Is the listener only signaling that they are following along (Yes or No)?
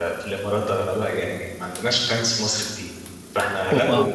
Yes